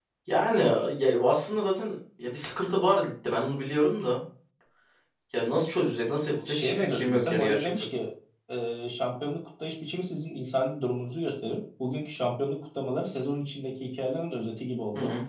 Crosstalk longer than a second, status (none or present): present